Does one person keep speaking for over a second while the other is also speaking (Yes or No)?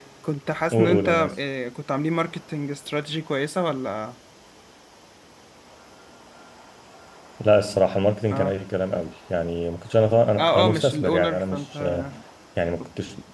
Yes